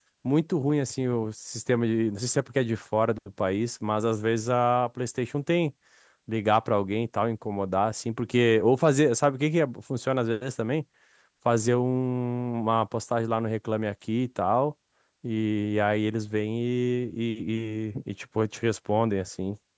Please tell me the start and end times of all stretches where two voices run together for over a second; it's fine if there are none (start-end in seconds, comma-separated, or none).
none